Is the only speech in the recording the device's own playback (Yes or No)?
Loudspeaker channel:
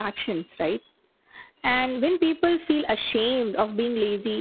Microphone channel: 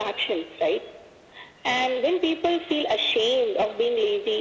Yes